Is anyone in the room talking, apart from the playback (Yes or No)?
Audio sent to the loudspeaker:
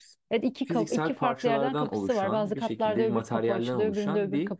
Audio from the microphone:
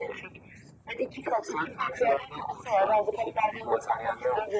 No